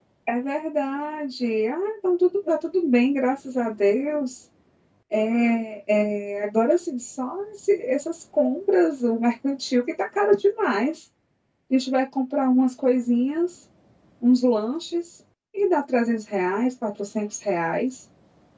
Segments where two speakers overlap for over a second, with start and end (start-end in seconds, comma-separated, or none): none